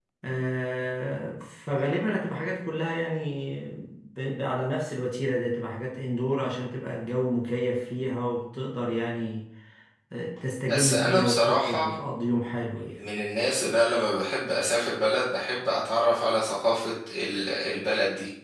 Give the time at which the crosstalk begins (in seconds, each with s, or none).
10.7 s